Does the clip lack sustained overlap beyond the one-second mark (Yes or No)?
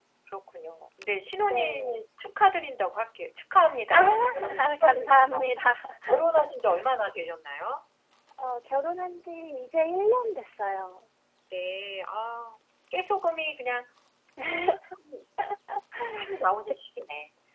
No